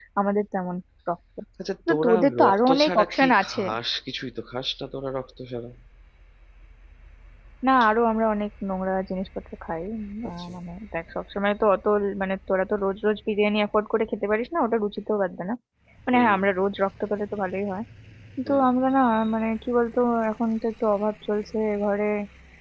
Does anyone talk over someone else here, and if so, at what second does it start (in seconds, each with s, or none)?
1.9 s